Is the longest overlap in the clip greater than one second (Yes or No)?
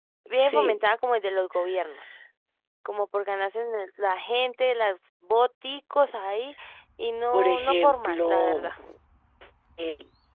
Yes